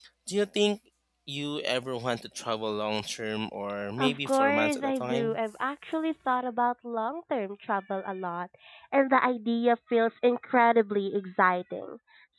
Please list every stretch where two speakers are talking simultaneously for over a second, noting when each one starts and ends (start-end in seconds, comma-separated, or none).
4.0-5.4